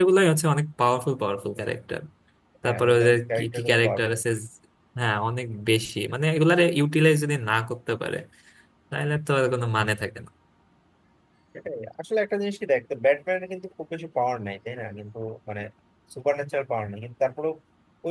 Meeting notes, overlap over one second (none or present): present